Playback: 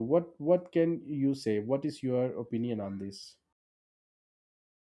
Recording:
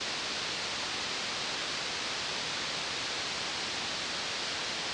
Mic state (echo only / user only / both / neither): neither